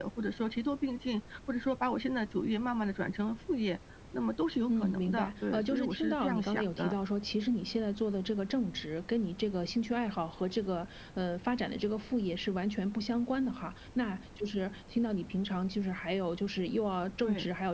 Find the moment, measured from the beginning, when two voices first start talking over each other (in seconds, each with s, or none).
4.7 s